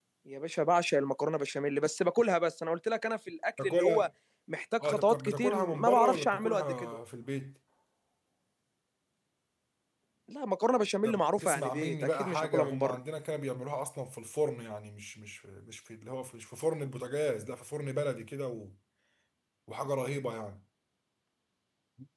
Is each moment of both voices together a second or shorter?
No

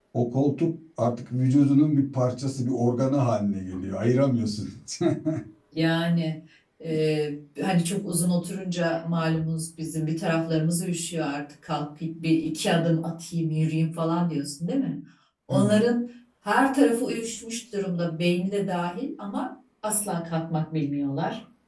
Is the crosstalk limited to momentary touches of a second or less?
Yes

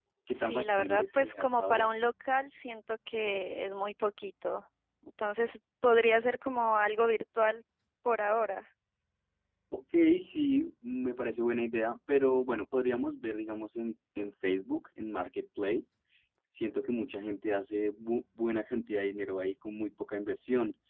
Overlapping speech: Yes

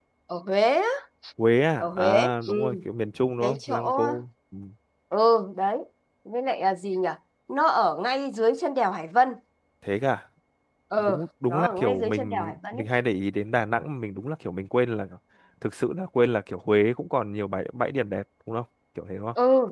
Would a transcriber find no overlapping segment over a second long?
No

